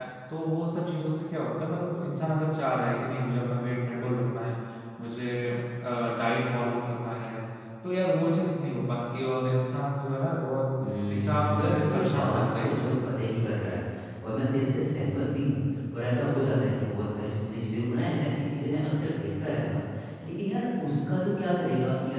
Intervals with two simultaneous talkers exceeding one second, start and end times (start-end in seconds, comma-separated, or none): 11.1-12.9